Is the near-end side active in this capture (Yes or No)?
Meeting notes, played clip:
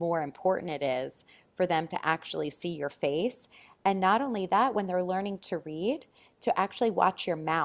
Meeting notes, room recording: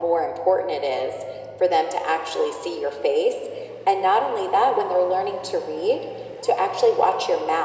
No